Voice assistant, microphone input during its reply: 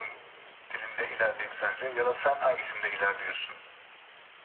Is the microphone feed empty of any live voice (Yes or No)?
Yes